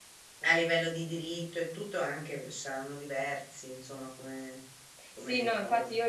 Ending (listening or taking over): taking over